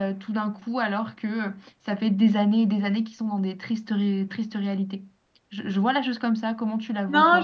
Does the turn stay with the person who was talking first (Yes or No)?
No